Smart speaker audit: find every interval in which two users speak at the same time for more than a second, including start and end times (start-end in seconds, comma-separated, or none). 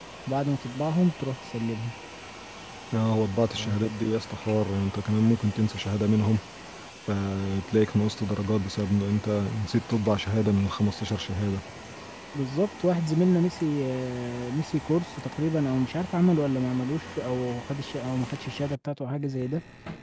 none